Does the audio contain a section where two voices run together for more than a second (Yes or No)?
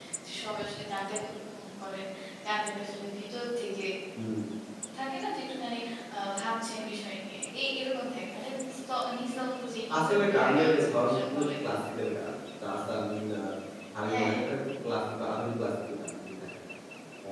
Yes